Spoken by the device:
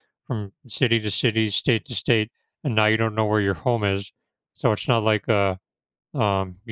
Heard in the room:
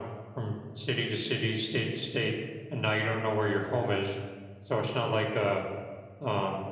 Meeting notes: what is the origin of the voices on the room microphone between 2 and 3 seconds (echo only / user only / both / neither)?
echo only